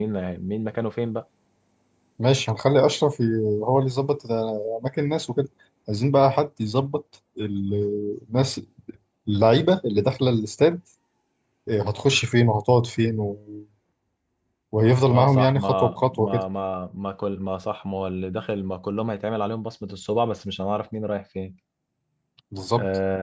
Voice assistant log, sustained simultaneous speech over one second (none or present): present